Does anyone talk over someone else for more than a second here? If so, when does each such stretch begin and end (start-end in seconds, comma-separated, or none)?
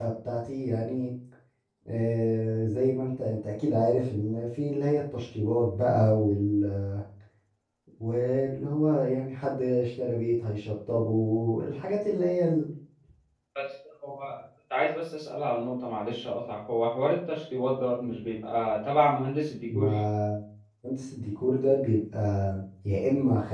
none